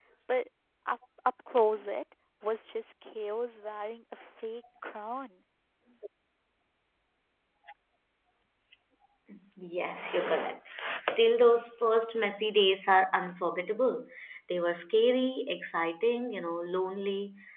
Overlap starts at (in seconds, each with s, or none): none